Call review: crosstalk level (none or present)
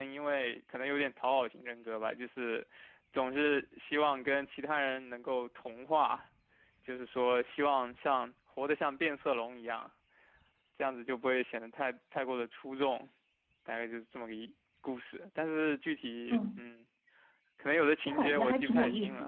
present